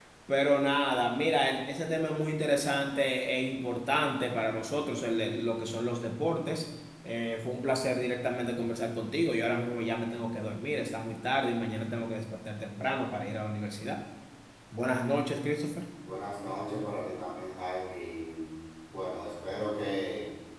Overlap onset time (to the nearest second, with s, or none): none